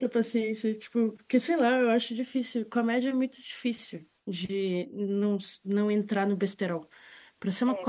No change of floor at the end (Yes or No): Yes